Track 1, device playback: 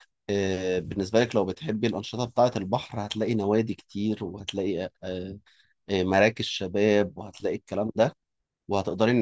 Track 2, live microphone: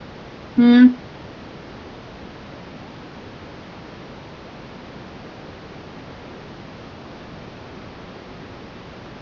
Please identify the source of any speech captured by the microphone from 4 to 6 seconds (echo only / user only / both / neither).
neither